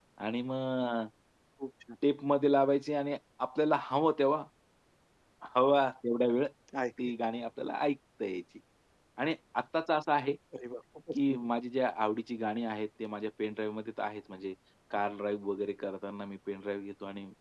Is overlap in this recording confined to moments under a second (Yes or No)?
Yes